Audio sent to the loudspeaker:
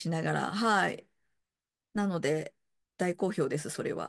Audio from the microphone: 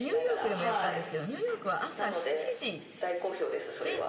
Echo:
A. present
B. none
A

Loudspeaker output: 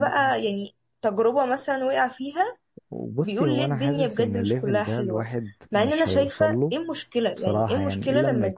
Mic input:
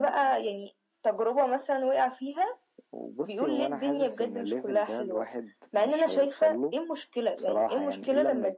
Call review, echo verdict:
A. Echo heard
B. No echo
A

